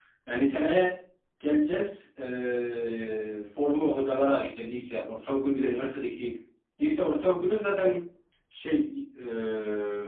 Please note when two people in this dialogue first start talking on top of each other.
none

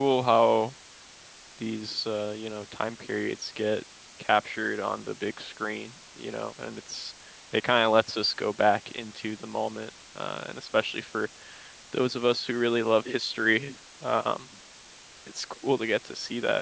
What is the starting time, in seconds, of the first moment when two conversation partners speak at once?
none

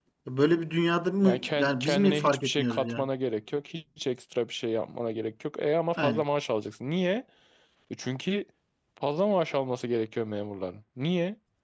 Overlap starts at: 1.2 s

